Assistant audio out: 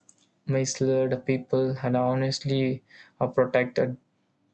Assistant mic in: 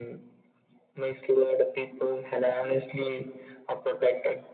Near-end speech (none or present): none